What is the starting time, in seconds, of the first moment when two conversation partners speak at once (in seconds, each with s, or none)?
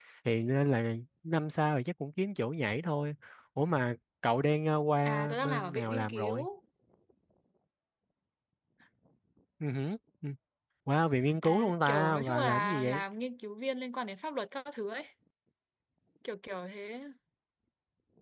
5.0 s